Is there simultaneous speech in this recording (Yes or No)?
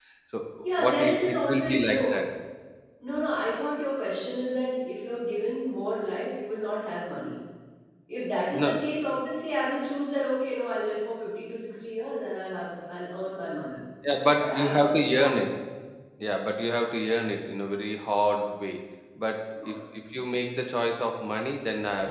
Yes